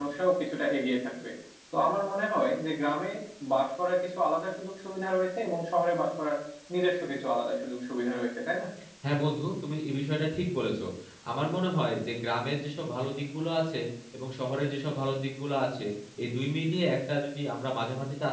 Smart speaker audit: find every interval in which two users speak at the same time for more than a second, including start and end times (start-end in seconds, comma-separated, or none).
none